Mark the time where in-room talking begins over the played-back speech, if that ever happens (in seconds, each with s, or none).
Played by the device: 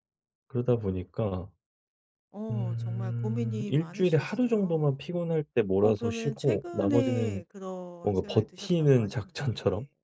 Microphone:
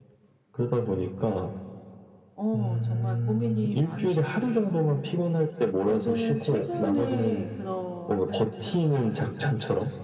none